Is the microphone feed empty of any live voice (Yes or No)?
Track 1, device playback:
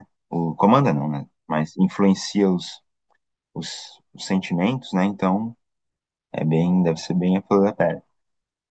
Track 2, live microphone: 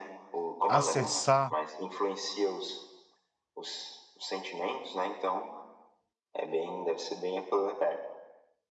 No